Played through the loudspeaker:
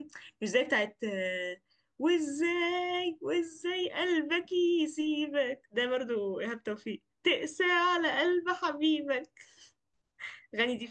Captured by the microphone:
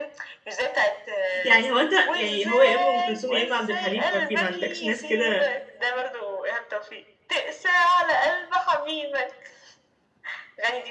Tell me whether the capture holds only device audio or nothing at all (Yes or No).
No